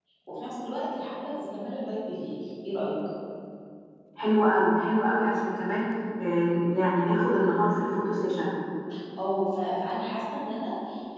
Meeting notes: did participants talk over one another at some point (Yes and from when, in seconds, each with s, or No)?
No